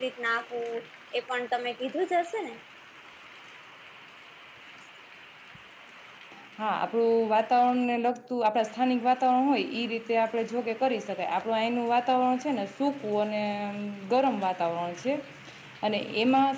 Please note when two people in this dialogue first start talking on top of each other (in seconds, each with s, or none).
none